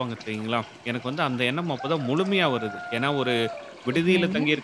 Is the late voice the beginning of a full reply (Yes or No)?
No